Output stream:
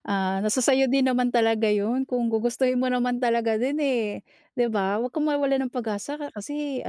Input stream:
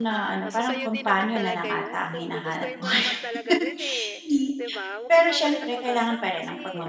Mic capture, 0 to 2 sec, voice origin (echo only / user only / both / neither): both